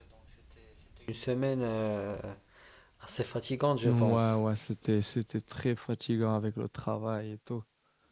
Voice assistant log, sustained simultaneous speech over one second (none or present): none